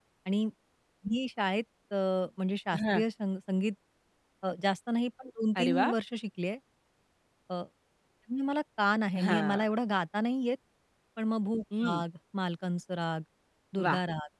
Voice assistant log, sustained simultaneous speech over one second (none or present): none